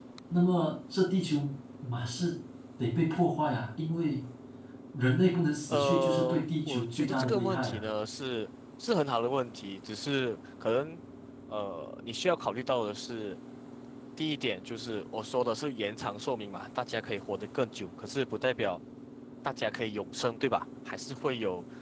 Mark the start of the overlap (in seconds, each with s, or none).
5.7 s